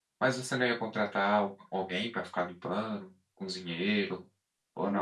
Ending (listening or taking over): taking over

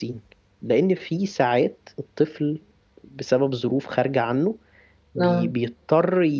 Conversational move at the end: listening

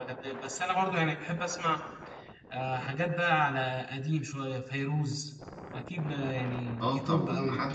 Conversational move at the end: taking over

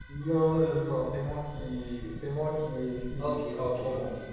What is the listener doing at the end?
taking over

